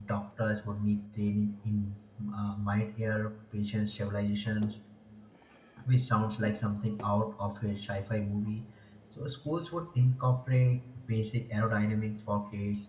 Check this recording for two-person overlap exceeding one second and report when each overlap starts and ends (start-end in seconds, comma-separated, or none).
none